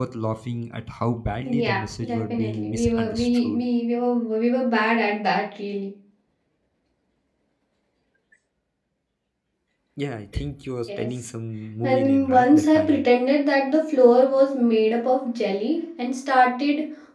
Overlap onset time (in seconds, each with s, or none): 1.5 s